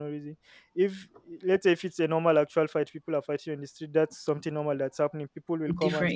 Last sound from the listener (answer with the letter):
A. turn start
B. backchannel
B